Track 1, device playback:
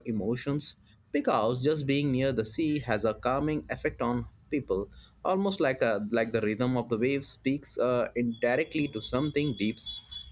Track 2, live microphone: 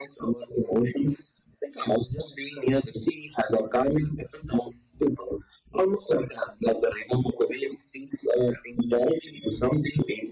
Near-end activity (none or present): none